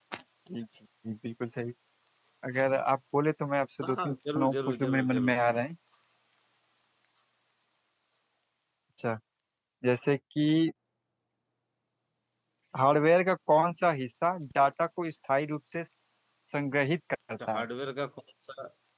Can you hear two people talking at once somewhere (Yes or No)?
Yes